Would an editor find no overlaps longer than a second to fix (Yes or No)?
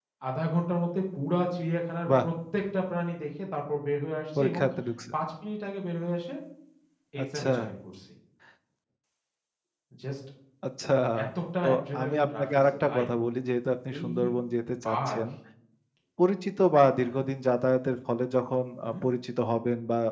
No